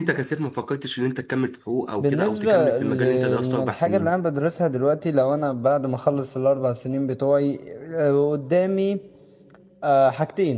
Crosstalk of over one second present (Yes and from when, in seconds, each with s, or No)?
Yes, from 2.0 s